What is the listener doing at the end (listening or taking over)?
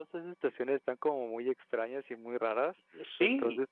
listening